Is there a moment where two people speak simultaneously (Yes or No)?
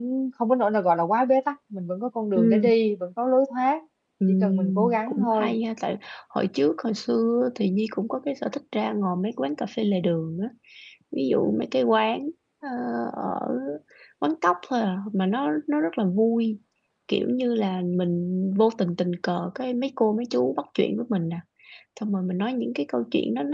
Yes